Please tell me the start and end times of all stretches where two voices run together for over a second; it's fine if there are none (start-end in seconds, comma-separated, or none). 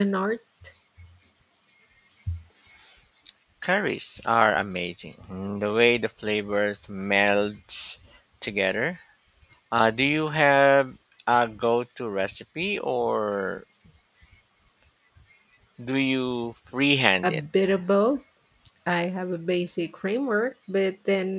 none